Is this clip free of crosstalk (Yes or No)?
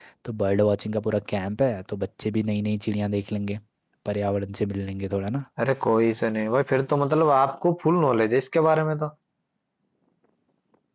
Yes